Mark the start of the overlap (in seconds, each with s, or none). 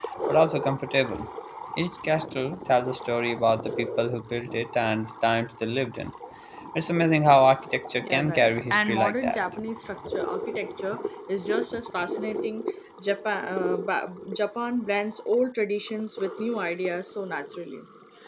8.0 s